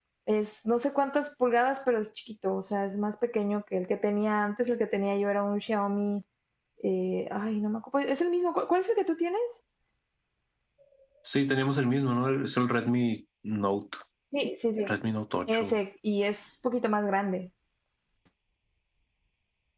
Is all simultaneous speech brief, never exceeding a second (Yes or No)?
Yes